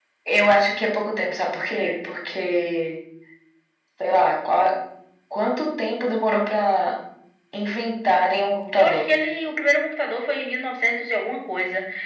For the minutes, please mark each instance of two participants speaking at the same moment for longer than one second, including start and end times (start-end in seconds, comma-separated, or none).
none